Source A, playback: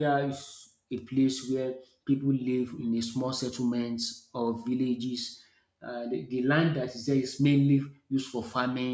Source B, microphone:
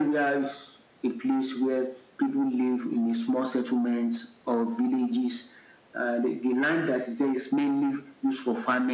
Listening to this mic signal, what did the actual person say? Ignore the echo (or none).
none